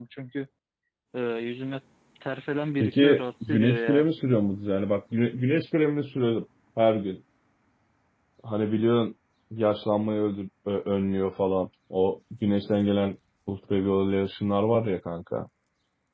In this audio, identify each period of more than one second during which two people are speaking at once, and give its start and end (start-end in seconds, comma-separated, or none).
2.8-4.1